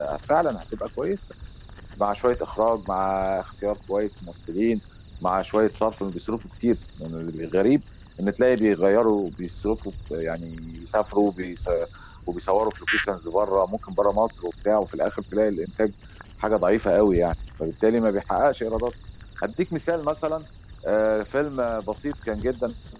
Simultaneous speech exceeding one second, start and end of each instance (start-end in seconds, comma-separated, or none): none